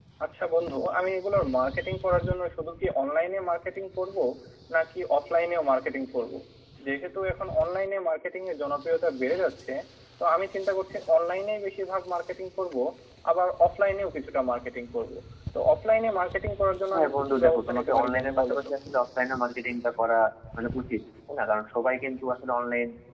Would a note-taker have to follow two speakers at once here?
Yes, from 16.9 s

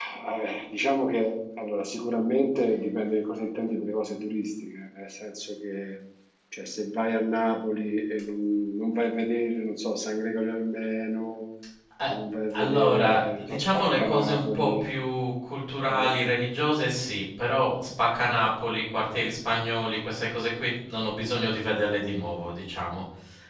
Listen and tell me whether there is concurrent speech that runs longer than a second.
Yes, from 12.6 s

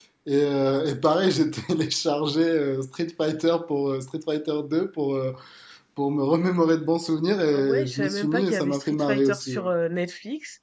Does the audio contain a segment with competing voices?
Yes, from 7.5 s

